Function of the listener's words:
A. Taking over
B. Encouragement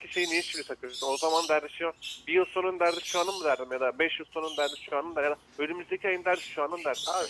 A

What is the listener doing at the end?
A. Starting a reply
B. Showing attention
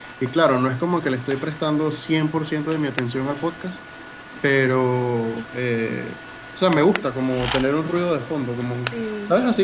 B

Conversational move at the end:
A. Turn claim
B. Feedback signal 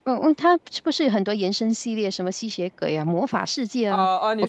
A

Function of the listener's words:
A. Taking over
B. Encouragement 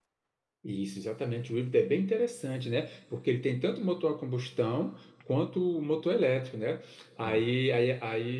B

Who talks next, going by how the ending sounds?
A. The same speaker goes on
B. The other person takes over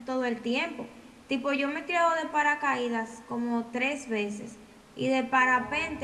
A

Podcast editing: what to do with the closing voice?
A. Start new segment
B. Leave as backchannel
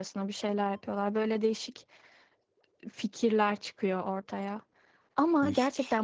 B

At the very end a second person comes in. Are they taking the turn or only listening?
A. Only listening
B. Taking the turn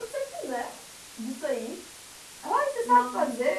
A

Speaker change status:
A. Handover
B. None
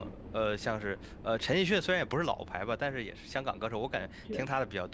B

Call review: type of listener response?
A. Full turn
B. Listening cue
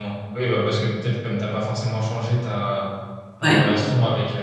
B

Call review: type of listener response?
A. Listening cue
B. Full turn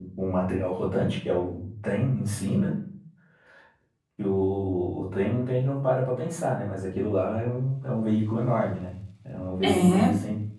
A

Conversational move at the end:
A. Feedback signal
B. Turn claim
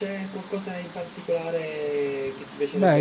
B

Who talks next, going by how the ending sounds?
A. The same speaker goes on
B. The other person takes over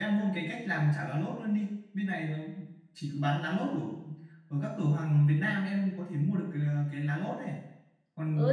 B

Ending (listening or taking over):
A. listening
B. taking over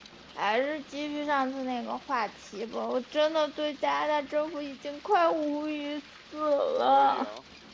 B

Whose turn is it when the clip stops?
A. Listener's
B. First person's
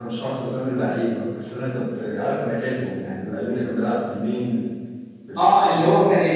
A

